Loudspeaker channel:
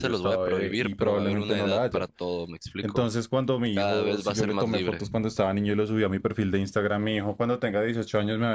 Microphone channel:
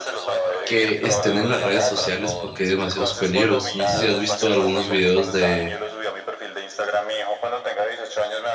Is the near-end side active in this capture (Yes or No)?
Yes